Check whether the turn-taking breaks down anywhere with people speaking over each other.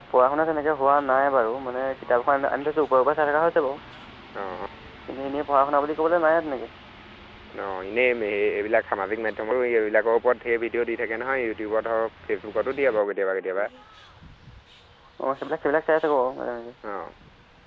No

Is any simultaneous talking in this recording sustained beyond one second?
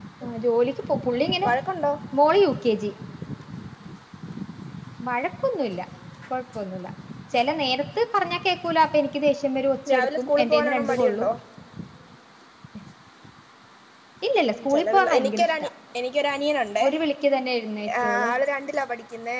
Yes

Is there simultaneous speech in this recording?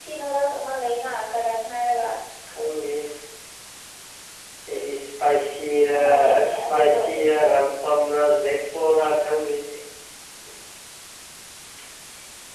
Yes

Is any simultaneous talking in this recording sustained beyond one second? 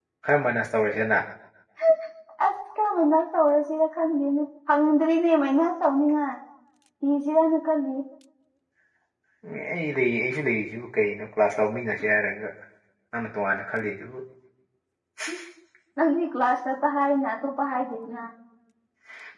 No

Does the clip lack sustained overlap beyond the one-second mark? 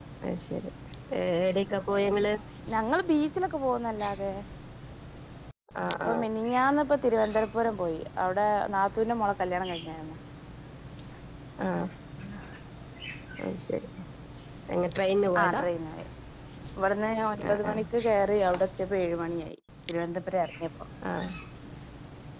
Yes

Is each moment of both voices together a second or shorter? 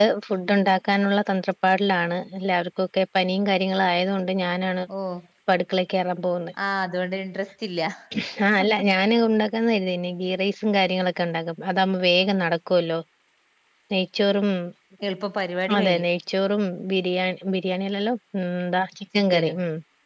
Yes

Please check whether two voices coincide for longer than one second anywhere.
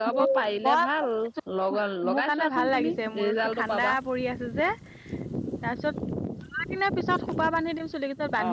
Yes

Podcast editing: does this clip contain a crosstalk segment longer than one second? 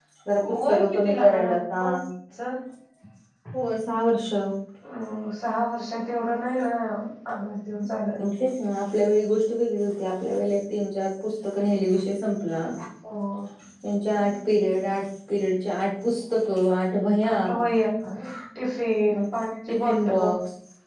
Yes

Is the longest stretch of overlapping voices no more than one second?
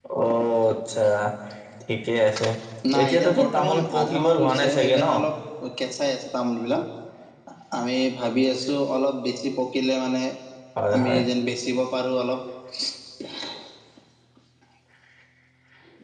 No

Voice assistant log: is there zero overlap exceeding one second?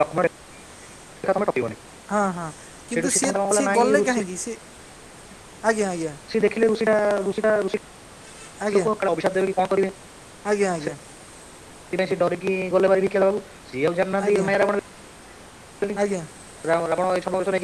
No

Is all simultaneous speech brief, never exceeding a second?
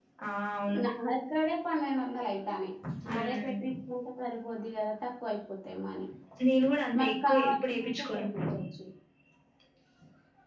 No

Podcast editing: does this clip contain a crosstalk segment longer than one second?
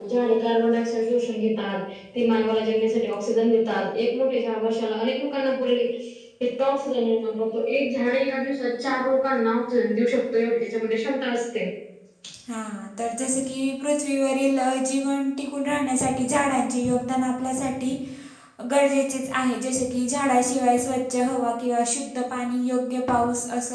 No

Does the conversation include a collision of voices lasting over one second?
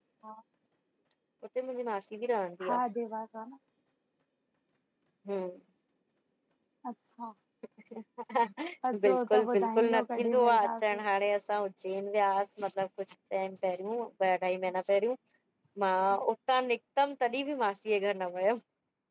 Yes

